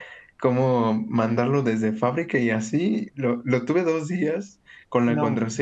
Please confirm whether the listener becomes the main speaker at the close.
No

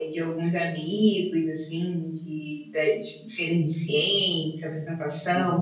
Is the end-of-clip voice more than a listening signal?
No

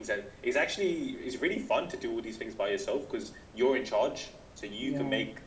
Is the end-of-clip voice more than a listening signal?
No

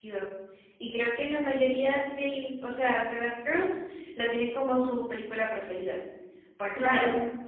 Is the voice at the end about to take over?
Yes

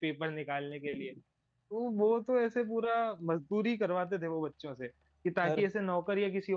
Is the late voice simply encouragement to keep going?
Yes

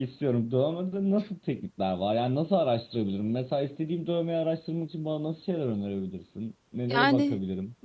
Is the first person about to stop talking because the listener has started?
Yes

